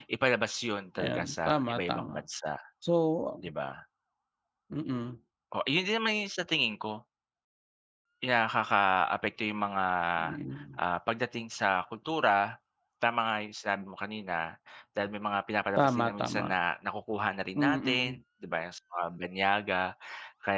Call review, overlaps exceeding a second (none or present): present